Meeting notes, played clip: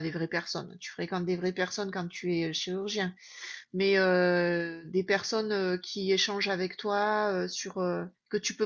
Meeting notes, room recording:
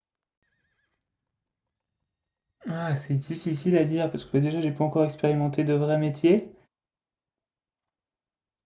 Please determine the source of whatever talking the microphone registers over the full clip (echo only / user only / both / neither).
user only